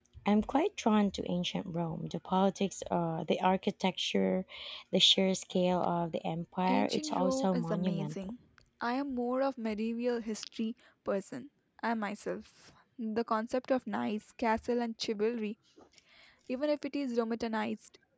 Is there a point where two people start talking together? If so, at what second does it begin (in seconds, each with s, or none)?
6.7 s